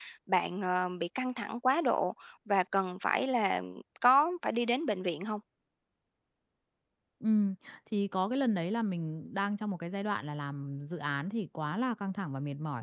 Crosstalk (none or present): none